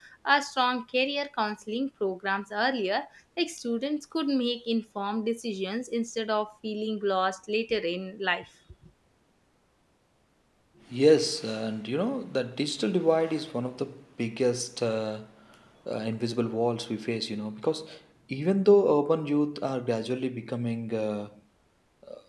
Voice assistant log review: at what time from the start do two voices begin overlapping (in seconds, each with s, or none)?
none